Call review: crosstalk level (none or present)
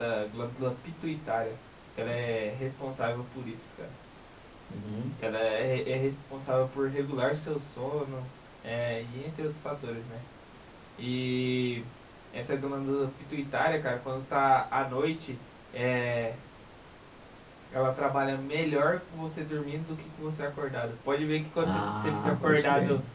present